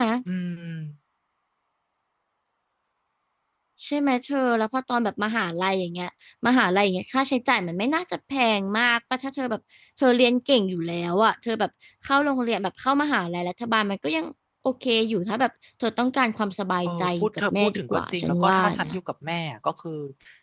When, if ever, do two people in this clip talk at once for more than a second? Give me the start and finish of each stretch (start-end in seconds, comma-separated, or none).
16.8-18.9